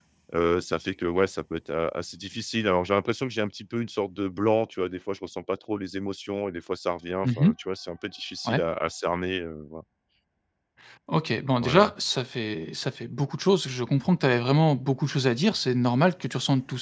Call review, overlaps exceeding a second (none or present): none